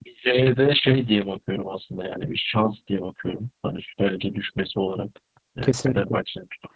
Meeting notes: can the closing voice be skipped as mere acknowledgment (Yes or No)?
Yes